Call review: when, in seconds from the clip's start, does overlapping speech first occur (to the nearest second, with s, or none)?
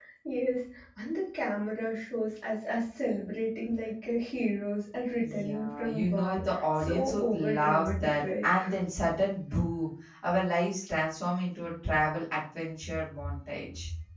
5 s